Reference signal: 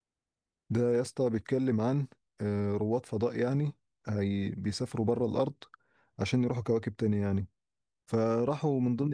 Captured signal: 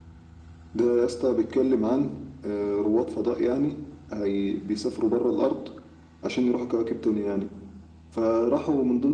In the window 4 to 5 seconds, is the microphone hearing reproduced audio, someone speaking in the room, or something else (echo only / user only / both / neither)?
echo only